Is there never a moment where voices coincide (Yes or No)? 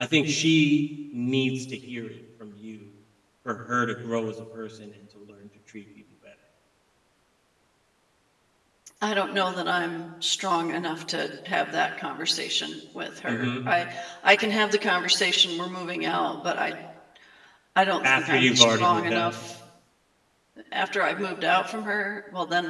No